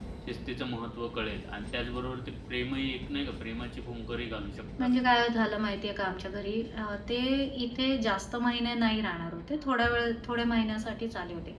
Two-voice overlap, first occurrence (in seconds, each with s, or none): none